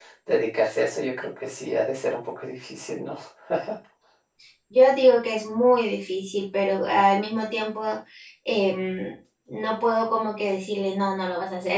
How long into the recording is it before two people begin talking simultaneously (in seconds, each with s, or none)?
none